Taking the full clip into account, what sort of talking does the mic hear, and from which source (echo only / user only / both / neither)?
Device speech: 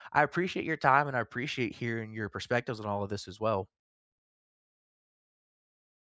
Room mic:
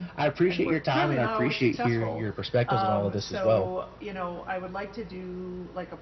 both